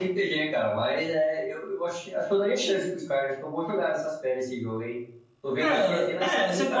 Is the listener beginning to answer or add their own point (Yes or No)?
Yes